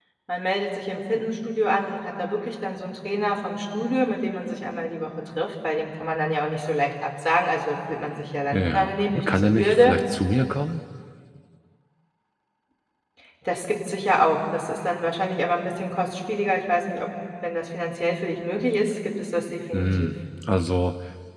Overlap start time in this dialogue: 8.5 s

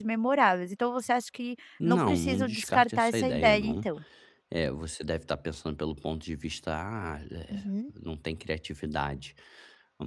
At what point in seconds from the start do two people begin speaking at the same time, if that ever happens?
1.9 s

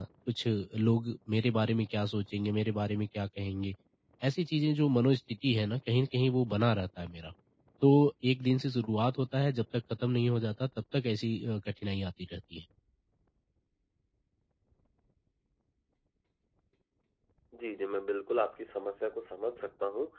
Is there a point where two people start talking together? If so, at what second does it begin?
none

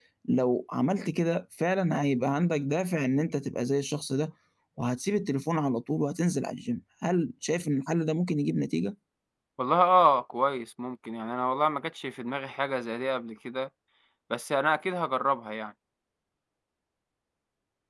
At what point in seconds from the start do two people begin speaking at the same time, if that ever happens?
none

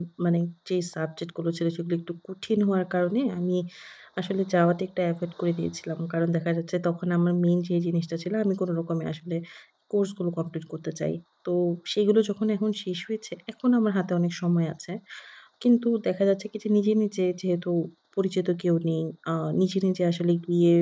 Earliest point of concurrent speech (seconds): none

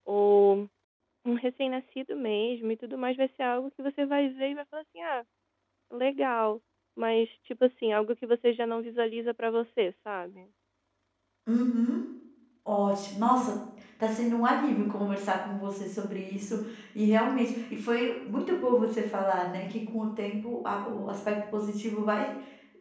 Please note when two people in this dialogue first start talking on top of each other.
none

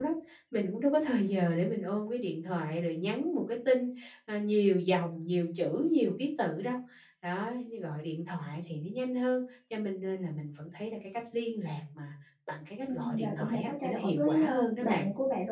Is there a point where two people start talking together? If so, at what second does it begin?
12.9 s

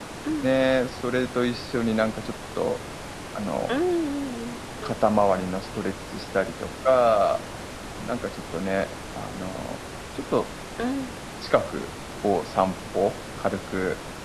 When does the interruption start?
none

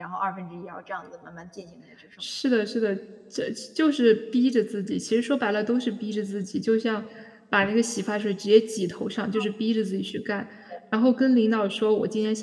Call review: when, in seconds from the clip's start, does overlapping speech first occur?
none

